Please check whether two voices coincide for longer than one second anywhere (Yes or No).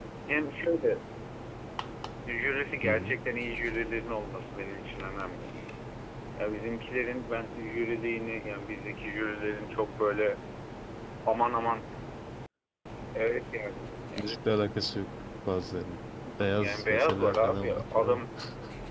Yes